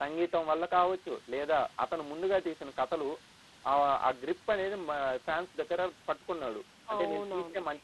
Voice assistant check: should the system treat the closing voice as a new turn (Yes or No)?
Yes